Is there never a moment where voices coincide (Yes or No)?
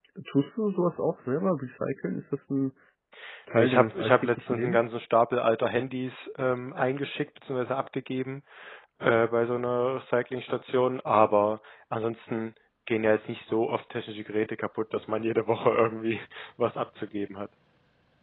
No